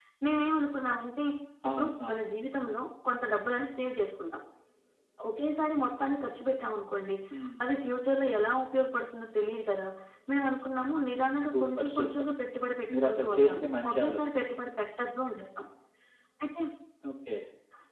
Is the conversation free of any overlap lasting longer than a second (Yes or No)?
No